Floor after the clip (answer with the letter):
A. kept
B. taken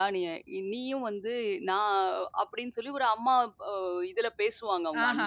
B